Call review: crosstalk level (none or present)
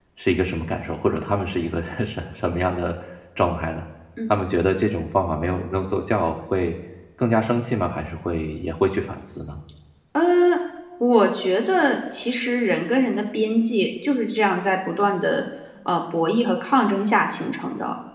none